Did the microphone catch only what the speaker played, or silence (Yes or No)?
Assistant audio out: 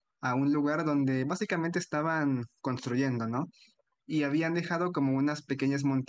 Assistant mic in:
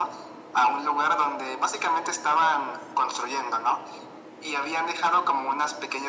Yes